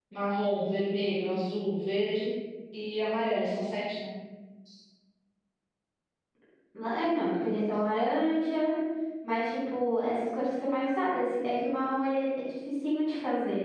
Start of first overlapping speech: none

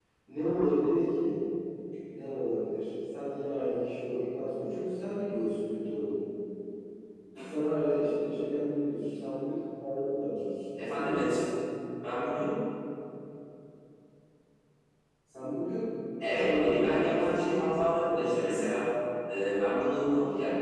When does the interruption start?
16.2 s

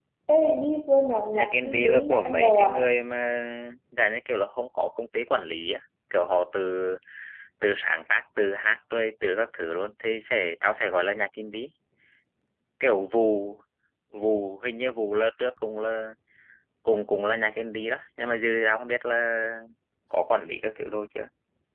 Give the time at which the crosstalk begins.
1.1 s

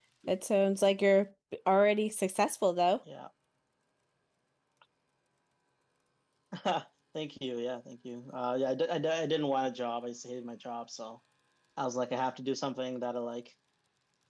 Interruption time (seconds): none

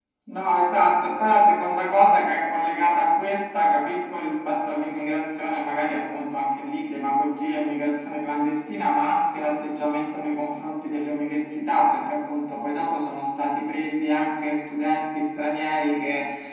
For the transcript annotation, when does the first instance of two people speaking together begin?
none

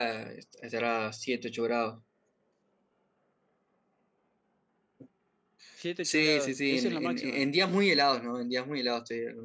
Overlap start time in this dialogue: 6.0 s

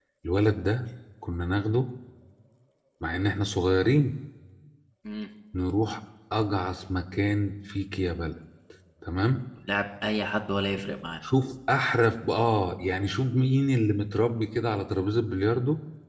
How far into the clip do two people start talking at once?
none

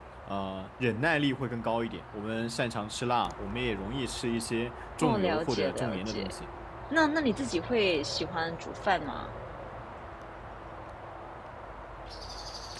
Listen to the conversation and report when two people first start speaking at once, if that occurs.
5.0 s

